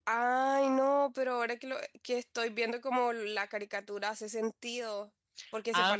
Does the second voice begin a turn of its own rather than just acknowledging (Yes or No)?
Yes